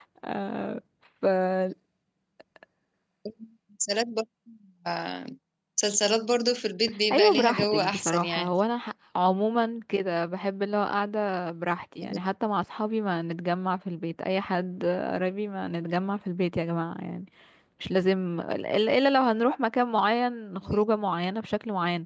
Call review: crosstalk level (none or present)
present